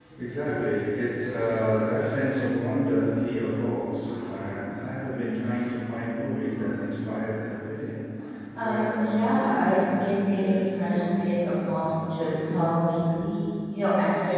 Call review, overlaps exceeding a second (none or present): present